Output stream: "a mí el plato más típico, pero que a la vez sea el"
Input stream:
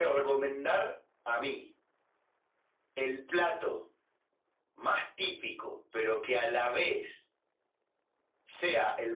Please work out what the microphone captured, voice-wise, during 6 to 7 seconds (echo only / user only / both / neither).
echo only